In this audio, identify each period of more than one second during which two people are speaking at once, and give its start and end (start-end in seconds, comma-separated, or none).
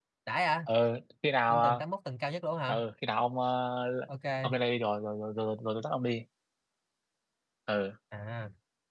none